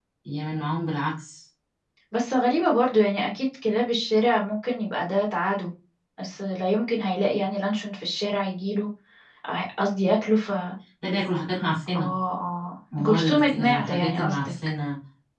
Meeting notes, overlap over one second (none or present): present